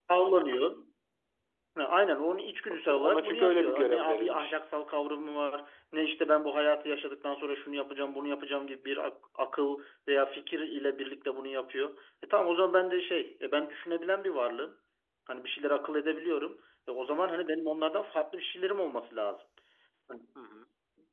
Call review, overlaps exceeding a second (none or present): present